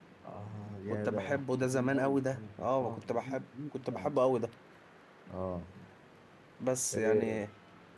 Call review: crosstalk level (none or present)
present